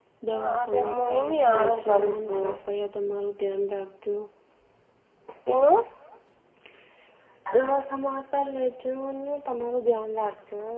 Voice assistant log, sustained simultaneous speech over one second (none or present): present